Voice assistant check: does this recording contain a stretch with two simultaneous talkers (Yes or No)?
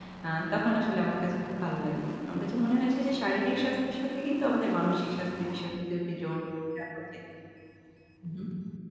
No